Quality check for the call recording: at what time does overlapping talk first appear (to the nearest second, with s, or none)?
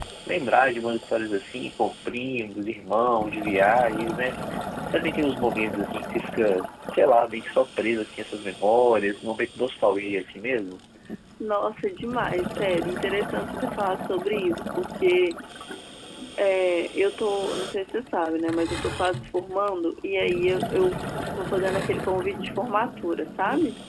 none